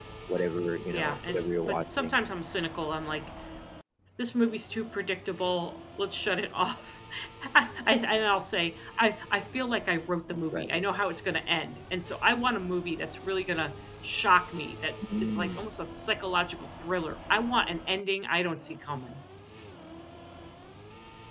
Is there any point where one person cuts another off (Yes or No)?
Yes